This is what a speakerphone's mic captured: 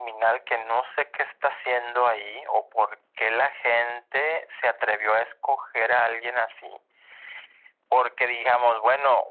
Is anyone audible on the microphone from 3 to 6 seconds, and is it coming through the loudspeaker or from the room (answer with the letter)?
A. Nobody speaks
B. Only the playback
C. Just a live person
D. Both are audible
B